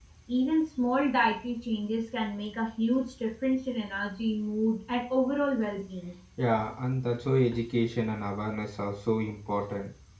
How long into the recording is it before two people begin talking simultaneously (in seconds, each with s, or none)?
none